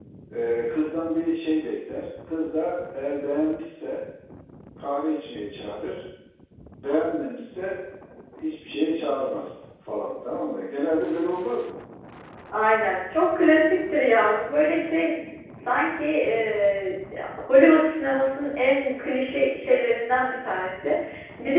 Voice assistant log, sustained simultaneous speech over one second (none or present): none